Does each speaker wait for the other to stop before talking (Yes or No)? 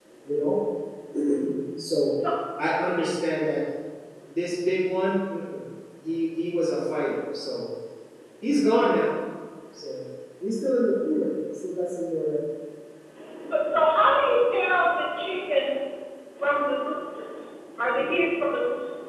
Yes